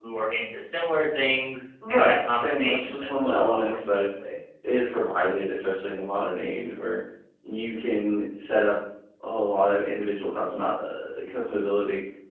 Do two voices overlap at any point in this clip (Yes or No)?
Yes